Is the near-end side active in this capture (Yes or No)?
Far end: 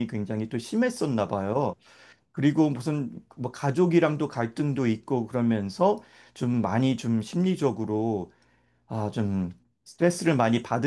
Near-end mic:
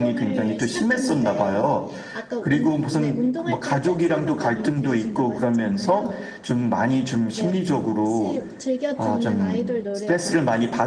Yes